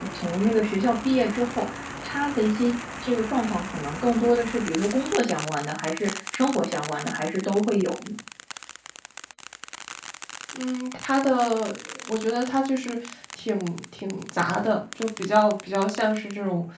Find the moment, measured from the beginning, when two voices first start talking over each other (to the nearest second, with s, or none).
none